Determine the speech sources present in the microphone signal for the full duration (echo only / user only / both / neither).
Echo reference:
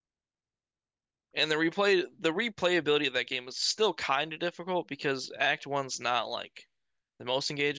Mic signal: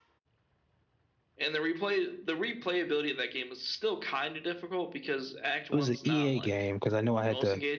both